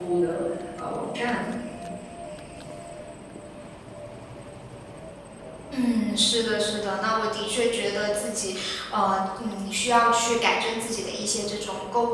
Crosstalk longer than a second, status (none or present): none